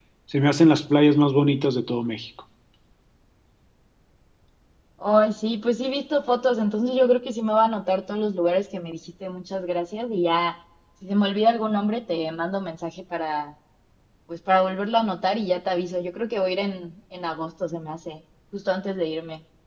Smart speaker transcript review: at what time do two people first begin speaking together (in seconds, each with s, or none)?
none